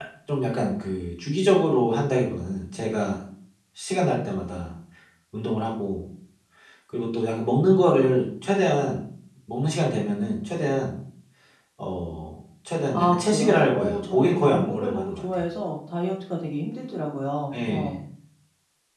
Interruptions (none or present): present